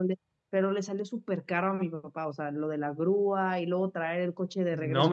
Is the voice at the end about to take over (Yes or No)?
Yes